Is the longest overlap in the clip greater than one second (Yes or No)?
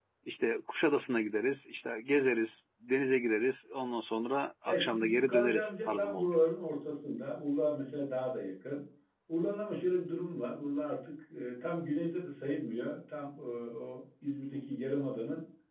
Yes